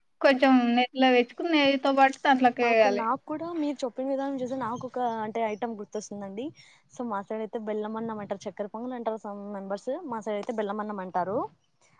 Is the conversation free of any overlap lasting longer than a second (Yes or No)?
Yes